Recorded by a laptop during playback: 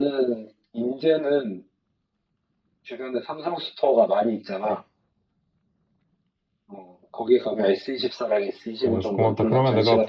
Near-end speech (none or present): present